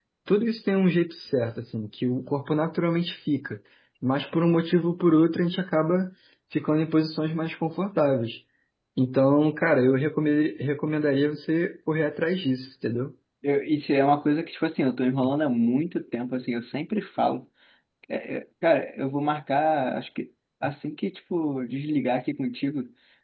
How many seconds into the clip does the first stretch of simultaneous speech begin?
none

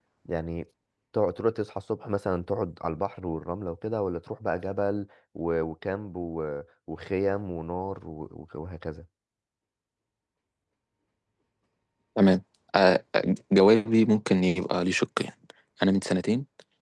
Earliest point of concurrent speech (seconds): none

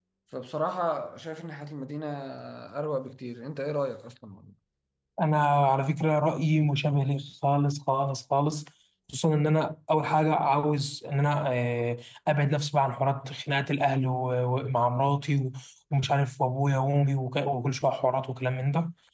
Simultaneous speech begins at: none

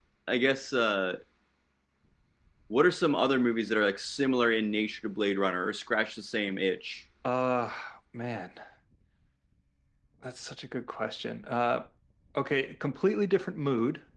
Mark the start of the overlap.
none

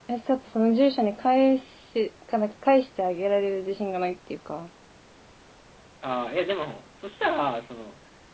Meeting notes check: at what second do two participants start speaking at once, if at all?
none

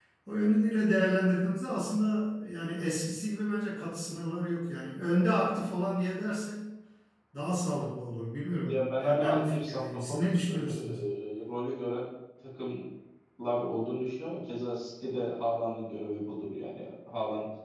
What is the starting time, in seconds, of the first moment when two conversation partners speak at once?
8.7 s

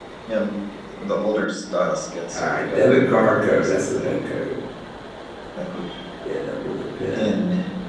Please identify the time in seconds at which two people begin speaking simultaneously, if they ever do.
2.3 s

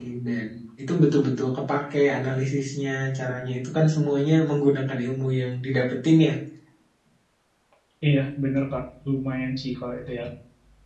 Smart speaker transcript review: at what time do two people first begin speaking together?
none

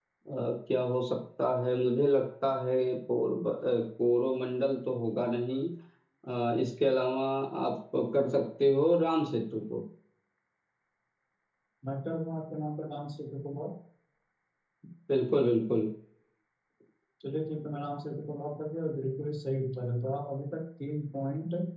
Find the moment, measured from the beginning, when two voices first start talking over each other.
none

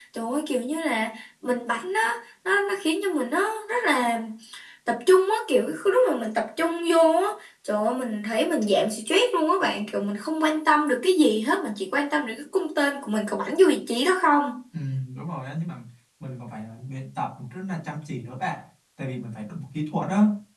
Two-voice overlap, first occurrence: none

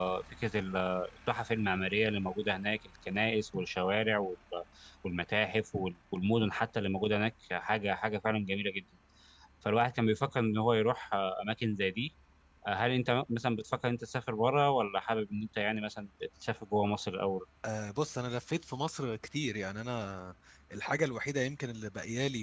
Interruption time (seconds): none

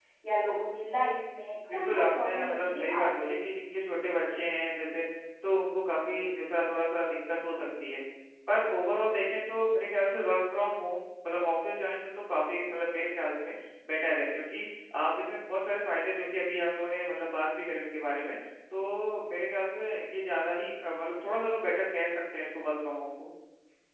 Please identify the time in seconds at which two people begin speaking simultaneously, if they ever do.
1.7 s

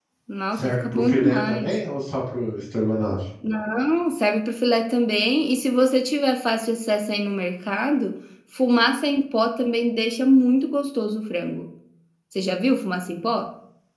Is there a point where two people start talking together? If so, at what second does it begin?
0.5 s

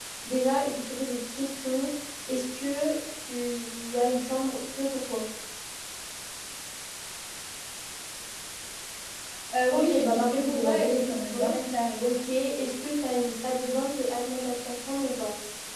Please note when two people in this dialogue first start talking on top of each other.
9.7 s

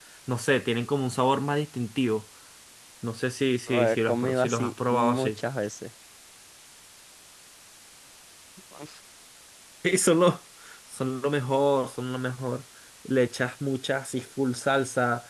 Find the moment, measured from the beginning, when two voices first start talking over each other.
3.7 s

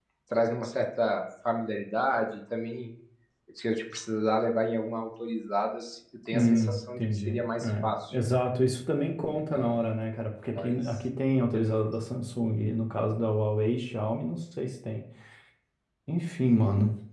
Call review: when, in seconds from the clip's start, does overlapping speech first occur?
6.3 s

